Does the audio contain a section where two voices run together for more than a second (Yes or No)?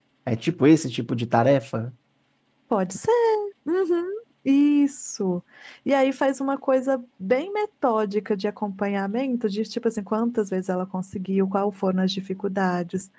No